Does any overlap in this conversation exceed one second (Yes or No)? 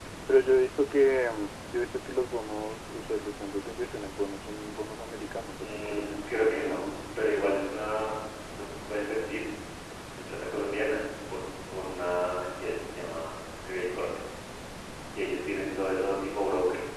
Yes